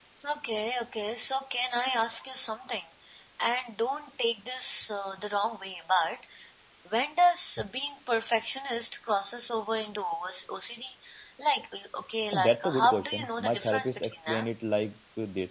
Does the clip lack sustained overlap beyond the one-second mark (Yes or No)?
No